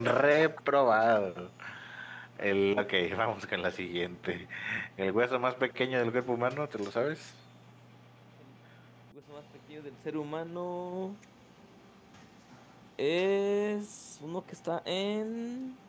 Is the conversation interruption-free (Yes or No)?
Yes